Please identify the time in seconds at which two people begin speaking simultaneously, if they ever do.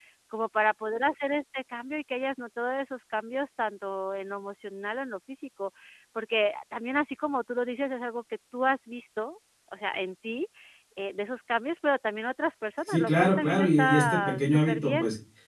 12.9 s

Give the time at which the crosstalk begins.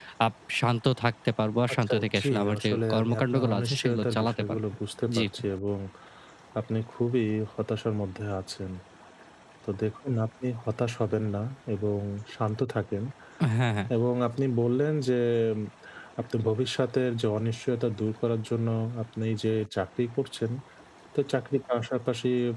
1.8 s

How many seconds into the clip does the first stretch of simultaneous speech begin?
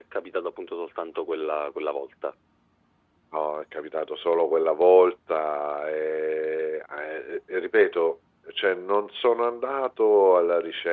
none

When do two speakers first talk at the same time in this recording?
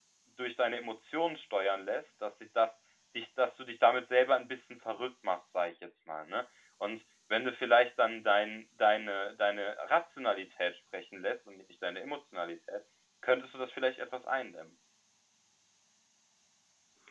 none

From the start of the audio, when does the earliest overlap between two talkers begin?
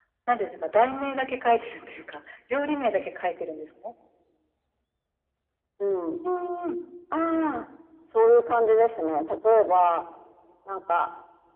none

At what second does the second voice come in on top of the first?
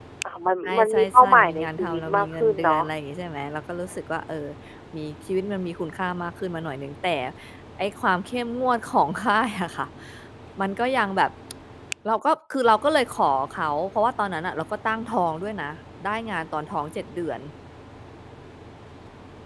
0.7 s

